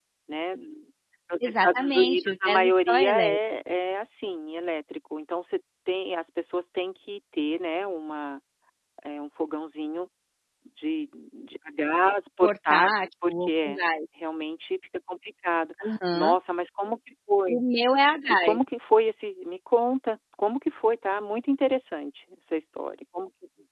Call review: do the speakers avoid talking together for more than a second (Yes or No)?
No